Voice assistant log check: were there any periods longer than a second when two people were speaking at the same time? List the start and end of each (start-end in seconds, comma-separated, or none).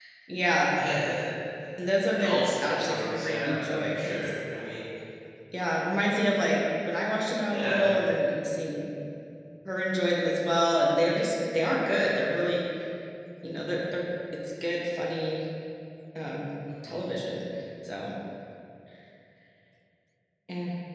2.2-4.4